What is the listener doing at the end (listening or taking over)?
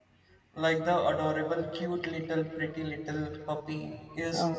taking over